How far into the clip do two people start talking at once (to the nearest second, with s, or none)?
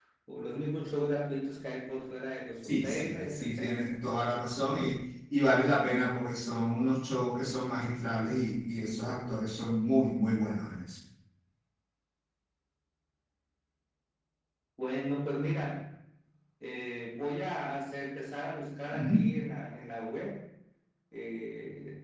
3 s